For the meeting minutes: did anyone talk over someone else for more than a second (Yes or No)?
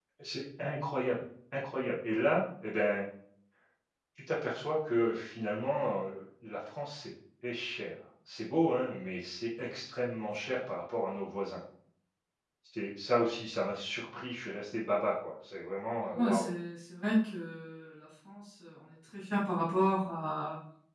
No